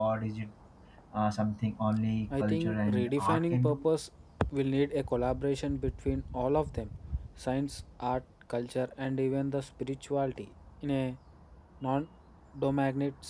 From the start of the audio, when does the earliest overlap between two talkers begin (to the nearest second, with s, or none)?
2 s